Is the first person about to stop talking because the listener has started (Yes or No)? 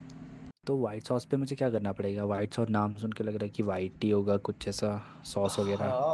Yes